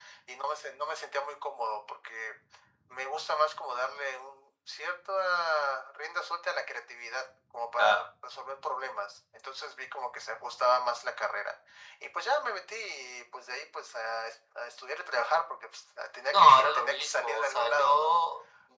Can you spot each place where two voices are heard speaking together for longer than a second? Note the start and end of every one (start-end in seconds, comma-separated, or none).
16.3-18.1